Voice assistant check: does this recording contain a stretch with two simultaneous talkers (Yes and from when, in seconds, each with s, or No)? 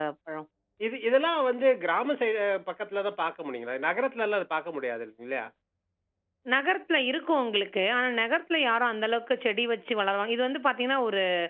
No